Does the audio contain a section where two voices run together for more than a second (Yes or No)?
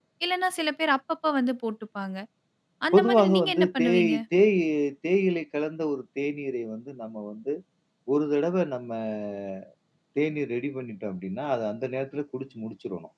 Yes